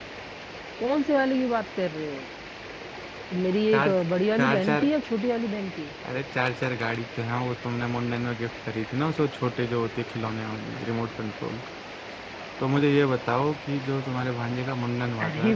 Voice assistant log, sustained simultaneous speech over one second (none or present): none